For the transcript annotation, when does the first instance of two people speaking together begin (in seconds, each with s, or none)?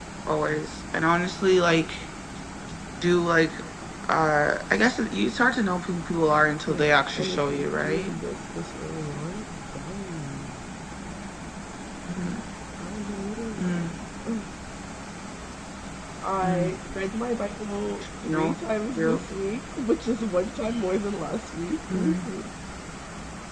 6.7 s